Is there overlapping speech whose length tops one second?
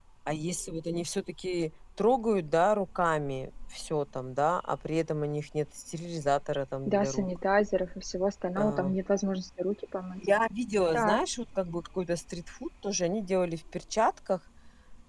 No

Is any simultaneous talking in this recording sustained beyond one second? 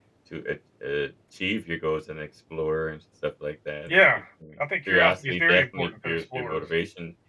Yes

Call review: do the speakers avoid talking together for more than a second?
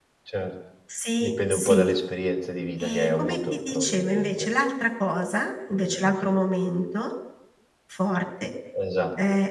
No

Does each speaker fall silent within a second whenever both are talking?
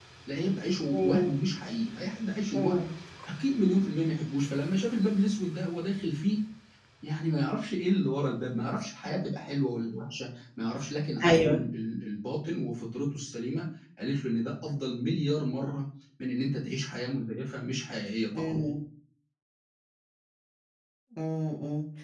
Yes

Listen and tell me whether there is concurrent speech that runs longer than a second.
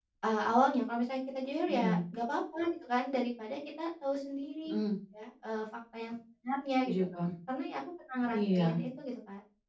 No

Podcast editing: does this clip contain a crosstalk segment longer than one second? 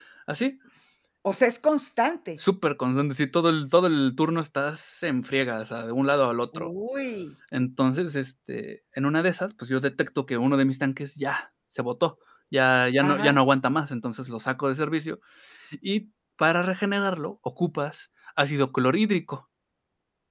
No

